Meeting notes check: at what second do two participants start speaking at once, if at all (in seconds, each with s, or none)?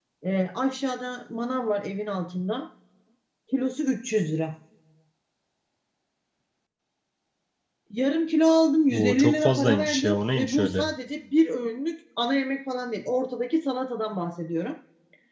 8.9 s